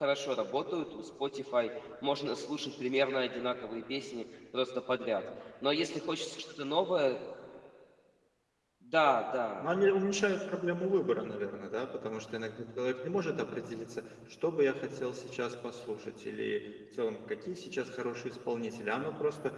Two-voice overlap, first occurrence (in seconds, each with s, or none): none